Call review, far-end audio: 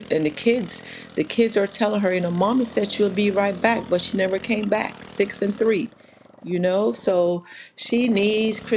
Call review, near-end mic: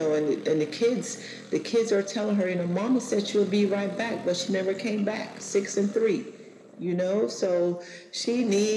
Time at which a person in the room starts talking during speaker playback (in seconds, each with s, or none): none